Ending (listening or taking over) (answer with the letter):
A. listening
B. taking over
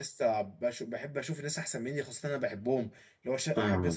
A